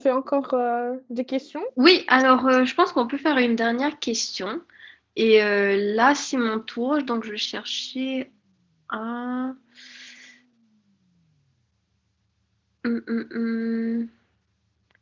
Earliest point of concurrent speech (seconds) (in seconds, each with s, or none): none